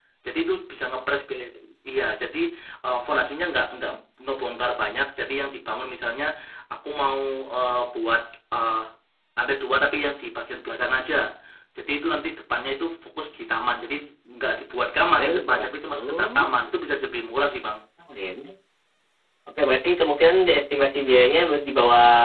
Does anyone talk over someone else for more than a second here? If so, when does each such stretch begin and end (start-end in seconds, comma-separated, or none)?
15.2-16.5